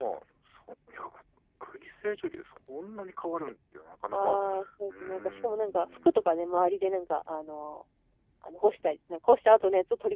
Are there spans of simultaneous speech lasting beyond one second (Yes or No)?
Yes